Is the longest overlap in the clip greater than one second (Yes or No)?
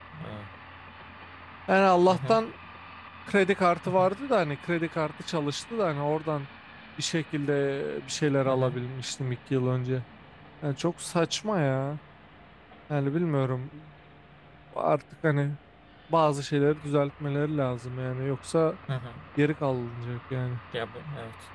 No